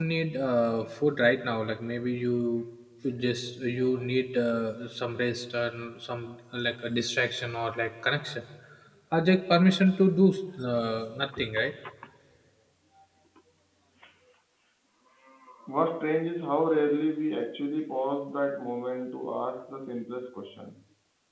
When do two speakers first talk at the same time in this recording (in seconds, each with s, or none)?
none